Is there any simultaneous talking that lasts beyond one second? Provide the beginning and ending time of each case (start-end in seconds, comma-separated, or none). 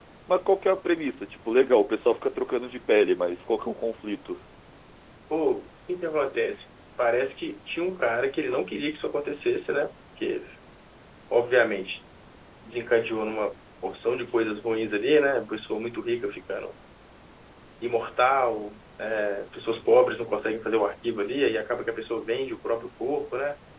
none